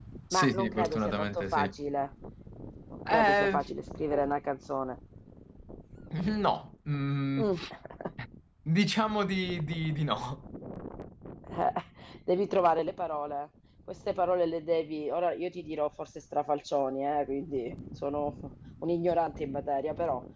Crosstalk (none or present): present